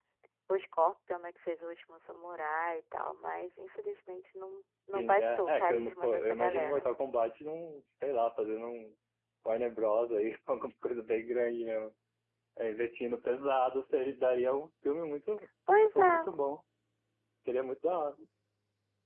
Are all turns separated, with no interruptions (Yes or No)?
No